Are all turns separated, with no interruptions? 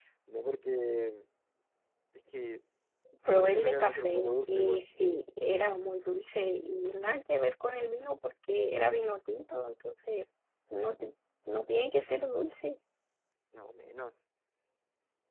No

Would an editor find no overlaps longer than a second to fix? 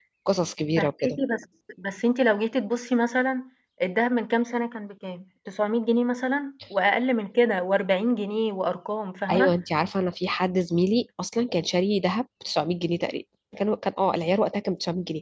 Yes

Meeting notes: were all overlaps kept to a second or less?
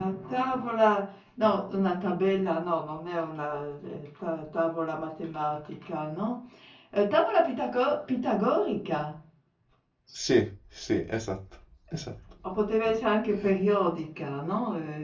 Yes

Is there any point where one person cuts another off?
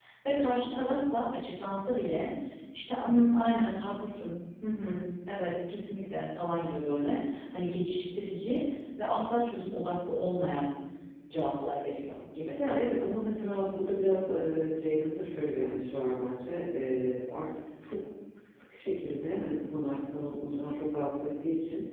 No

